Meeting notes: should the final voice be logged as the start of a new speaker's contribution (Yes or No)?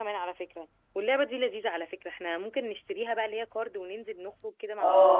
Yes